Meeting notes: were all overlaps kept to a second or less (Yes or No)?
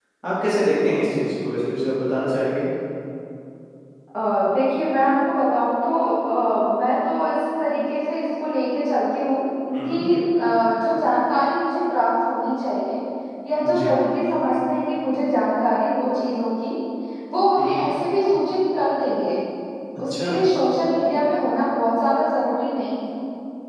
Yes